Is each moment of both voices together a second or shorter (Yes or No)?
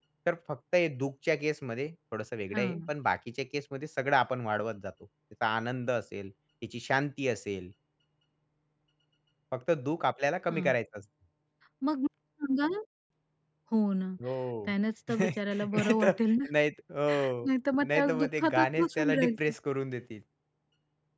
No